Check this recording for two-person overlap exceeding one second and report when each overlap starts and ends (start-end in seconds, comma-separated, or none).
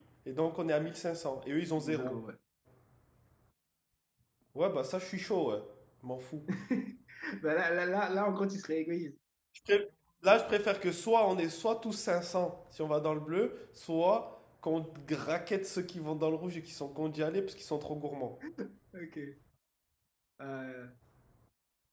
none